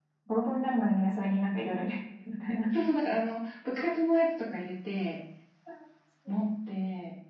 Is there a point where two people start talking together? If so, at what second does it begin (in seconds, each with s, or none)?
none